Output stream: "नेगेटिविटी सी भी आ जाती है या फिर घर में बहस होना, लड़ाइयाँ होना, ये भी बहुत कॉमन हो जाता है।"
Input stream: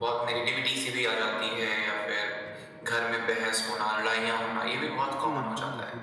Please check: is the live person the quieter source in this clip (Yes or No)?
Yes